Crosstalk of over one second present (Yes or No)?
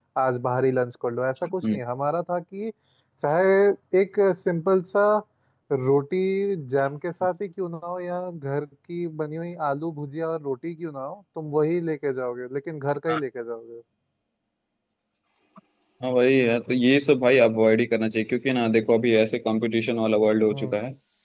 No